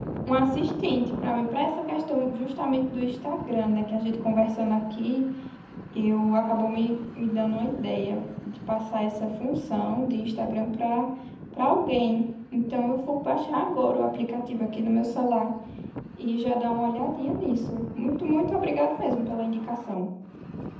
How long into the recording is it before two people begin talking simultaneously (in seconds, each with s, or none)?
none